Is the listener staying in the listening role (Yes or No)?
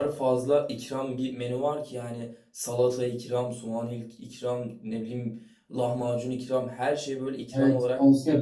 No